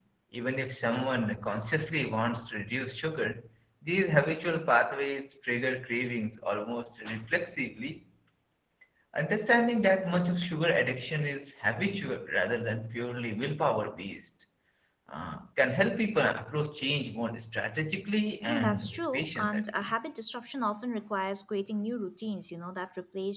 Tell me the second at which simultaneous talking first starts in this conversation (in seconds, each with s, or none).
18.5 s